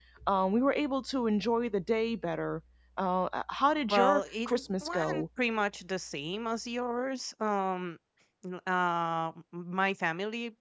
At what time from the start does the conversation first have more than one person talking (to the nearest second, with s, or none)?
4 s